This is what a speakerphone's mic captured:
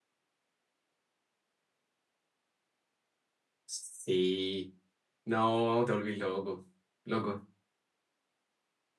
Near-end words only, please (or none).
Sí, no, te volvís loco, loco.